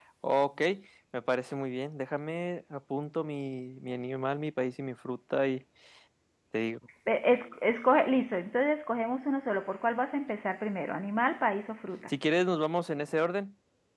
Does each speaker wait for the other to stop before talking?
Yes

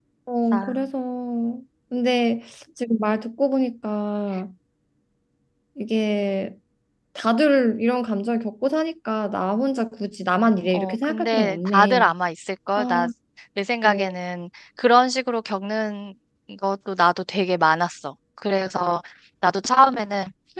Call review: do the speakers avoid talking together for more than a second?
No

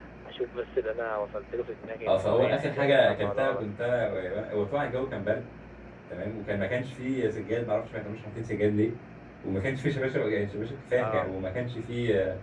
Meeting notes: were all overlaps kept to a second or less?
No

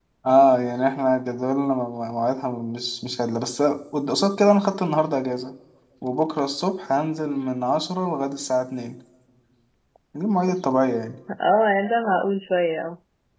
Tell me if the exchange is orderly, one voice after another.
Yes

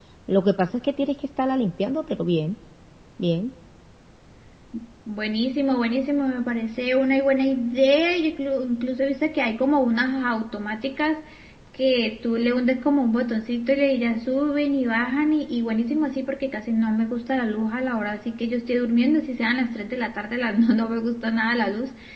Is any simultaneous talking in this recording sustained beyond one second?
No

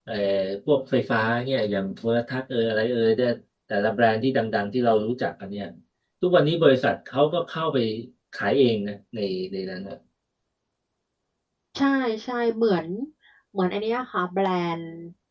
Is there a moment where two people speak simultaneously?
No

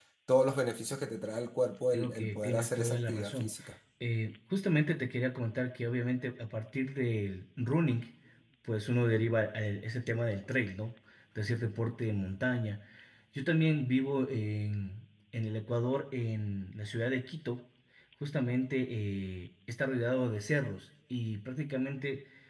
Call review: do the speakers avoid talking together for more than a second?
No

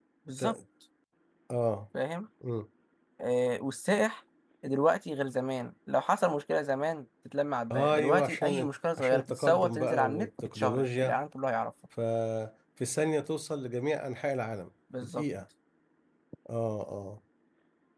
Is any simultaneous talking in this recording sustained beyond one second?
Yes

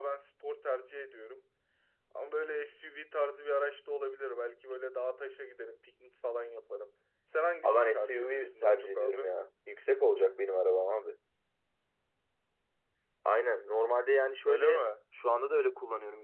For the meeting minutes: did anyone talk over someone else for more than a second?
Yes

